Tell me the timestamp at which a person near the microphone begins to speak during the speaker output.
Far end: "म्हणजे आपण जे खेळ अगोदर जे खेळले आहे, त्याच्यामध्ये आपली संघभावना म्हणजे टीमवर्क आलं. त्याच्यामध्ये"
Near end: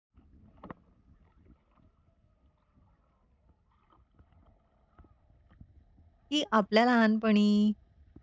6.3 s

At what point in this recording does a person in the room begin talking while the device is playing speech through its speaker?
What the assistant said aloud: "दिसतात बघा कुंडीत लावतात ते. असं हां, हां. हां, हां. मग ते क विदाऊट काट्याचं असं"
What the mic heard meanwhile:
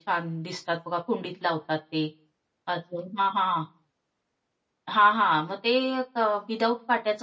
none

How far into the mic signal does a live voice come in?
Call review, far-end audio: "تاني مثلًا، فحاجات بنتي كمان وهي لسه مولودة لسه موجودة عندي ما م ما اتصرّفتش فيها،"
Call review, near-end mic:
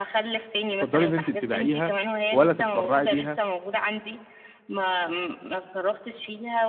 0.7 s

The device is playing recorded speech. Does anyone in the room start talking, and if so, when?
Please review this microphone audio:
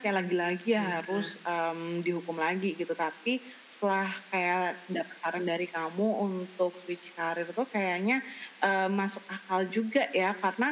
0.8 s

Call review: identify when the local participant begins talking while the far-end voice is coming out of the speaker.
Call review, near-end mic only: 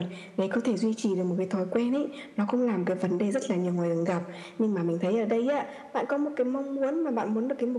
none

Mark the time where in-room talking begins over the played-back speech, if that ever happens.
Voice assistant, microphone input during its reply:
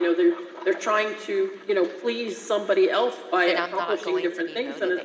3.4 s

